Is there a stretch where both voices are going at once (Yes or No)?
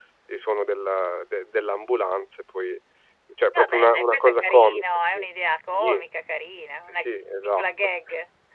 Yes